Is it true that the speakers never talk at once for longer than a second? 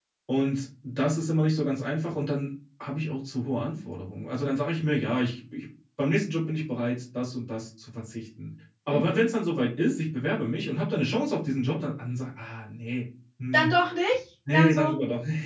Yes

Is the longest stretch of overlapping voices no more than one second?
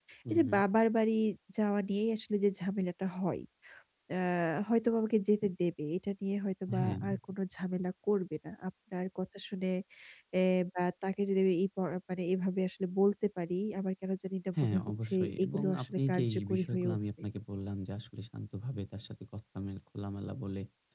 No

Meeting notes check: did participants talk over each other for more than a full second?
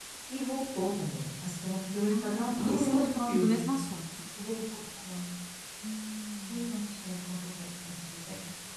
Yes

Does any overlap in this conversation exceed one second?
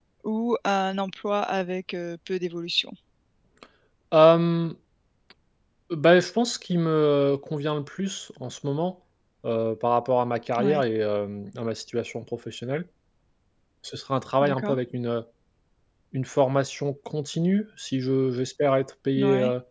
No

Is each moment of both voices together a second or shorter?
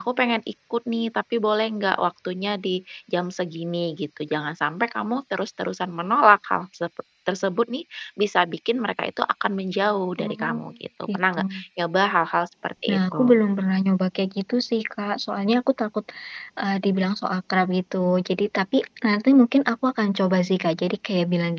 Yes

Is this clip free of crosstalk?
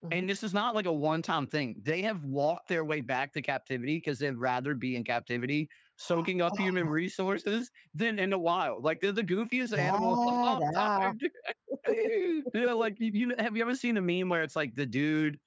No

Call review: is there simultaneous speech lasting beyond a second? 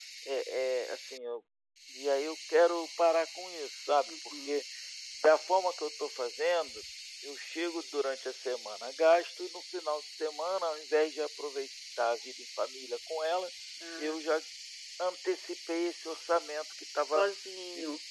No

